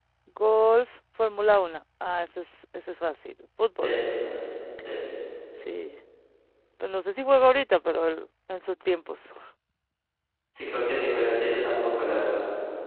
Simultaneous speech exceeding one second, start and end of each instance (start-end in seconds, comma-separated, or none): none